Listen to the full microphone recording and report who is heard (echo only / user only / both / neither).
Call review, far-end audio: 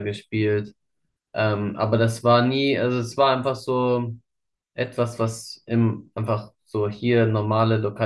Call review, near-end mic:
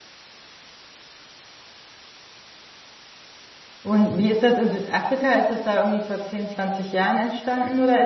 user only